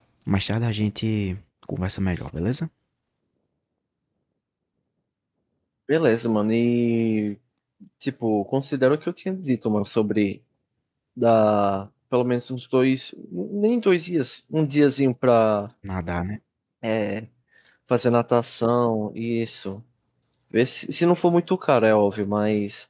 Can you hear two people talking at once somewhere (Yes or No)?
No